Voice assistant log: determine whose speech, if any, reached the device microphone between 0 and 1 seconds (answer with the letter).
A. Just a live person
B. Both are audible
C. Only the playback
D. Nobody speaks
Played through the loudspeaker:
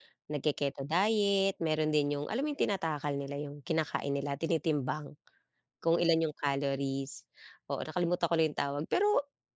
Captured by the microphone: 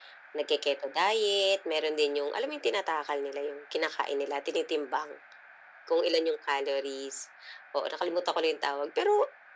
C